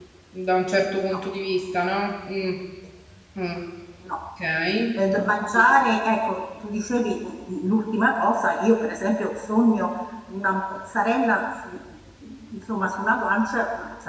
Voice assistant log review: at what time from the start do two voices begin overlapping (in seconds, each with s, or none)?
none